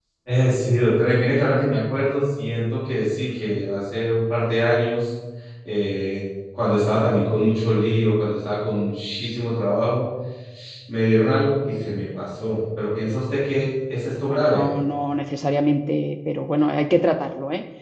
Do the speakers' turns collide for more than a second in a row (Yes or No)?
No